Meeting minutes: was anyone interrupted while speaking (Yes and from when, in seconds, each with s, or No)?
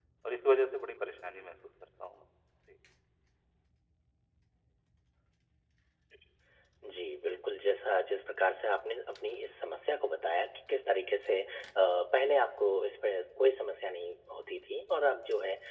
No